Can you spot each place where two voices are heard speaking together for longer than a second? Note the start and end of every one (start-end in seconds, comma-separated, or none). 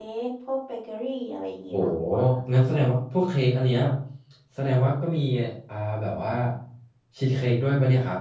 none